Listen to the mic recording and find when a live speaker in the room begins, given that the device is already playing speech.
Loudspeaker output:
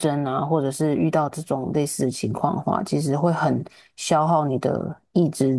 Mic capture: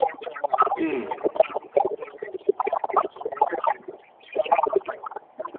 1 s

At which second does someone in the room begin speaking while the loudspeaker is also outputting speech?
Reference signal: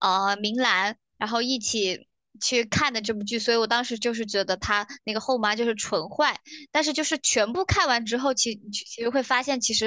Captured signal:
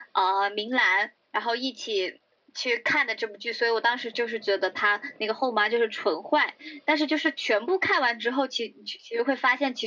none

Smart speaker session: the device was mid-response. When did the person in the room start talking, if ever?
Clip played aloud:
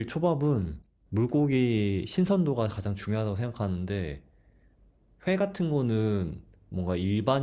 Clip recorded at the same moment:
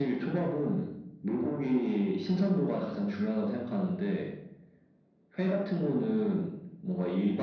none

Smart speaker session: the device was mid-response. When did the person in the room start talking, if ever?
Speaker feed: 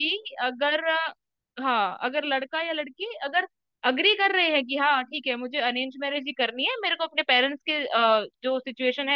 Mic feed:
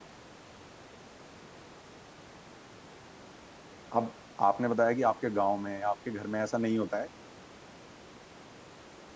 4 s

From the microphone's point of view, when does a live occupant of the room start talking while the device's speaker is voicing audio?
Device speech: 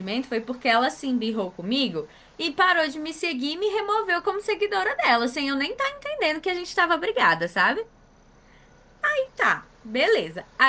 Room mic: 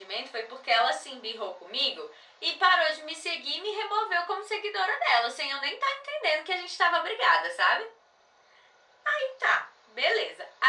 none

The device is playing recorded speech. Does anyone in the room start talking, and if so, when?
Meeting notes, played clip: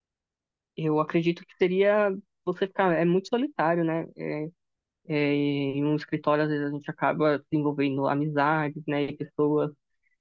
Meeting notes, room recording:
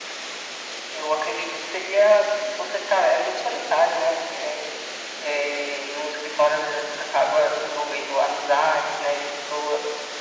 none

